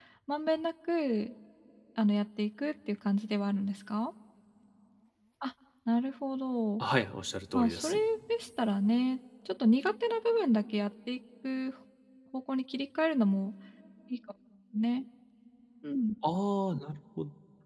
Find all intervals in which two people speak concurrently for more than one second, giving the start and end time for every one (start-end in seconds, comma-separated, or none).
none